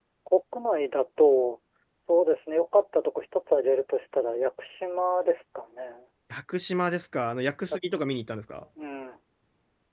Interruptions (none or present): none